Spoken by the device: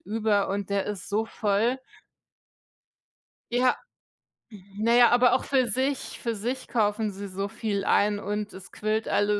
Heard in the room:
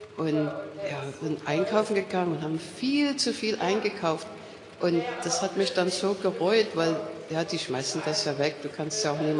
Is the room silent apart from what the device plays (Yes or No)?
No